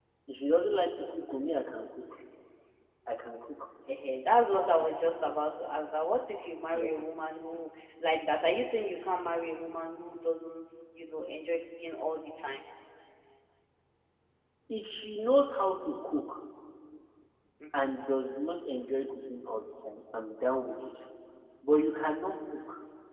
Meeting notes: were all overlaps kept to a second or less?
Yes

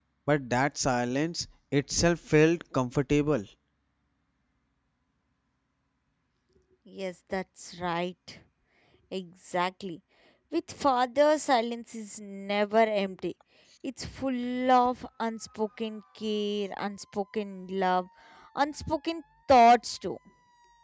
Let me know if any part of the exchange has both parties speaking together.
No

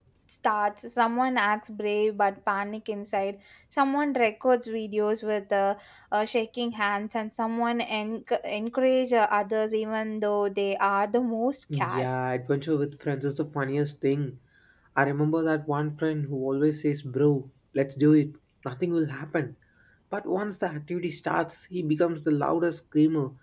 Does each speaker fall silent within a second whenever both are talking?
Yes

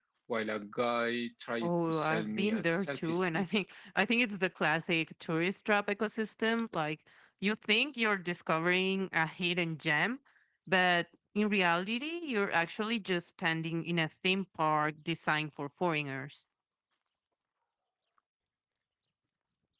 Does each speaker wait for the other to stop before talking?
No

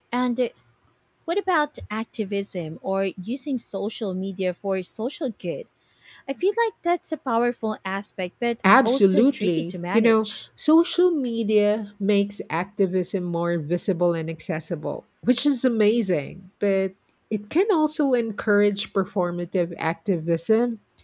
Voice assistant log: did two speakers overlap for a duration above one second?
Yes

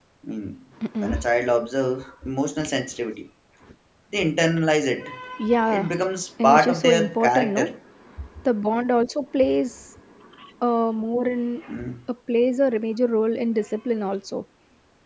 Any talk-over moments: Yes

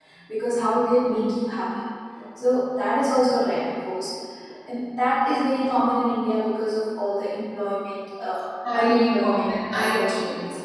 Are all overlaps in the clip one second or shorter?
No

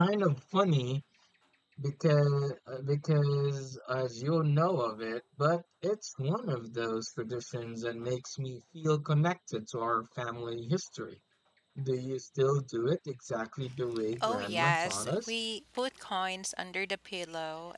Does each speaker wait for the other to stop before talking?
No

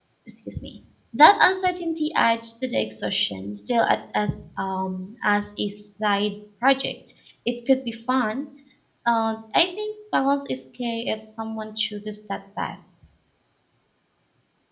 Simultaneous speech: No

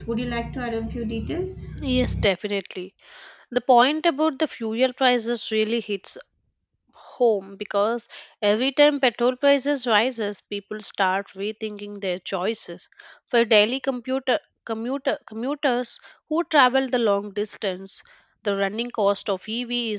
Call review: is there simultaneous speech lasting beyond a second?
No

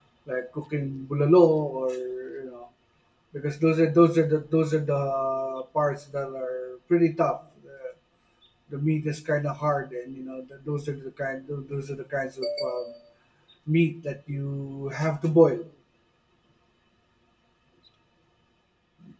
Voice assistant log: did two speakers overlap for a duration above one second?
No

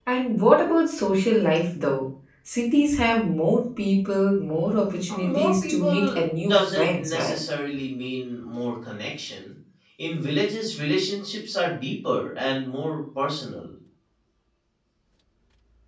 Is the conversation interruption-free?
No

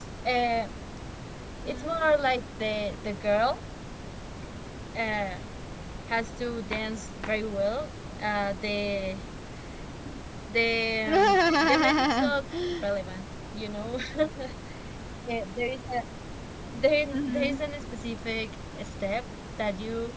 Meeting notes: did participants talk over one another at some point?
Yes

